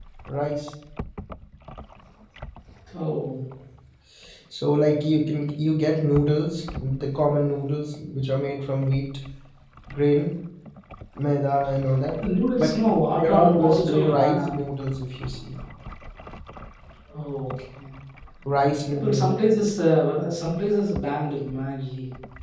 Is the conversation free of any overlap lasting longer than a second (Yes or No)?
No